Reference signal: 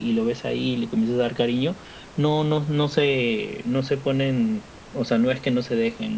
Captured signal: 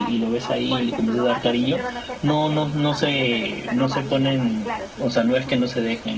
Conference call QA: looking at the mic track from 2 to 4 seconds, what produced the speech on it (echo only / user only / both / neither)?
both